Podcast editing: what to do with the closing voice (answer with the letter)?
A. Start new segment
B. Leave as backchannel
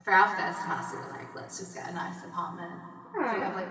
B